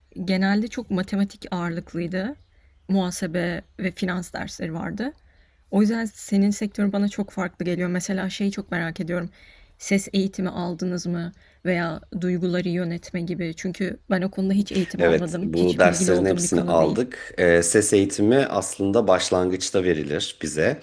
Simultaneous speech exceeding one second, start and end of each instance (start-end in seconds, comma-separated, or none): 15.0-17.0